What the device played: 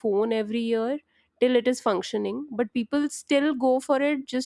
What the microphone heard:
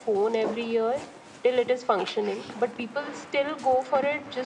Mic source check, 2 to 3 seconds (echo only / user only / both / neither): echo only